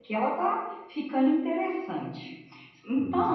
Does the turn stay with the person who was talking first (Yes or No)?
Yes